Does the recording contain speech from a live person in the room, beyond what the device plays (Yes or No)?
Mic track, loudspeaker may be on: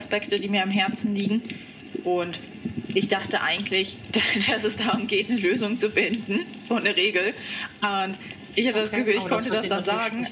Yes